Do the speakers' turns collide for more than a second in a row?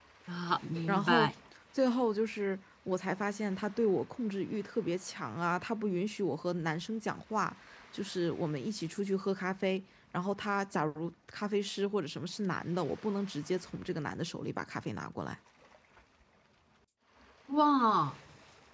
No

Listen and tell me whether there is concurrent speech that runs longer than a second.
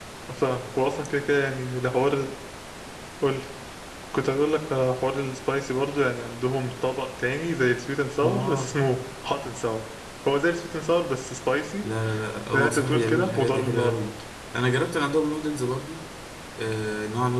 Yes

